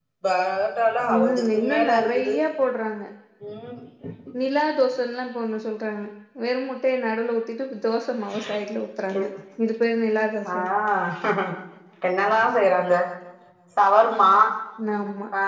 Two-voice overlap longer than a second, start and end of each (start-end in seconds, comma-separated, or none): 1.1-2.3